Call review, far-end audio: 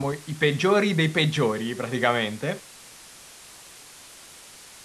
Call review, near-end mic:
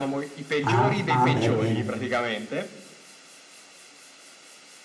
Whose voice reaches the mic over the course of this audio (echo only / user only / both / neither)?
both